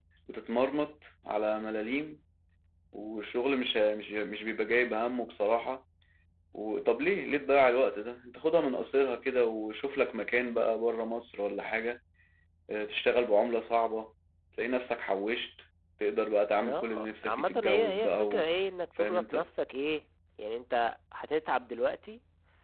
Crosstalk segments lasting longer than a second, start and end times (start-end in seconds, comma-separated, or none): 16.6-18.5